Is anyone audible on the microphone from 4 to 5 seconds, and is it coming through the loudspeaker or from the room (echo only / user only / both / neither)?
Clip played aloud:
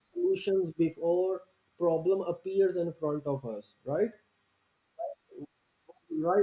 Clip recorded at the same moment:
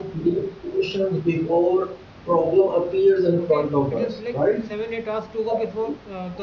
both